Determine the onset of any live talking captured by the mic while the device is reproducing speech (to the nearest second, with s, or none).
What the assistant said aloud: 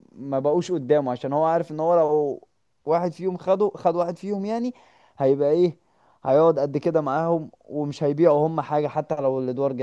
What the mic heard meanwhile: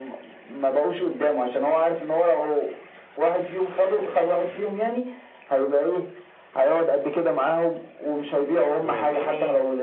9 s